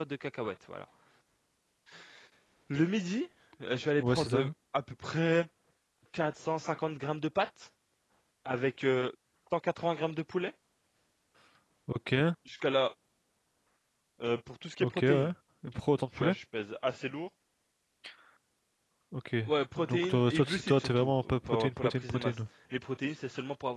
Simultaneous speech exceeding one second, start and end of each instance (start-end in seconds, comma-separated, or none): 19.8-22.3